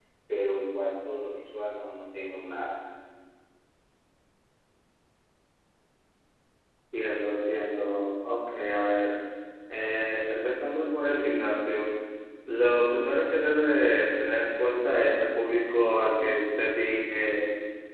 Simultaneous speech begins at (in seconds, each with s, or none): none